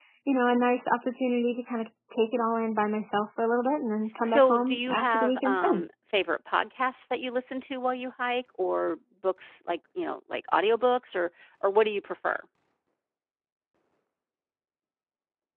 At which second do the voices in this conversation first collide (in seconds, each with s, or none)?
4.2 s